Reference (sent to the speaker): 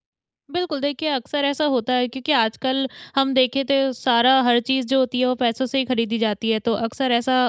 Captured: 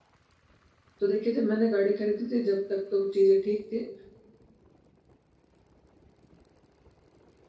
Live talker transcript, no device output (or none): तो देखिए जब मैंने गाड़ी खरीदी थी जब तक तो चीज़ें ठीक थी,